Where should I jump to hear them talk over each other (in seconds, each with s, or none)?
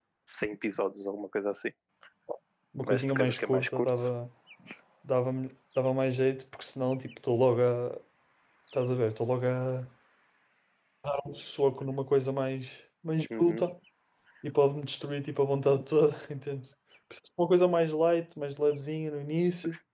2.9 s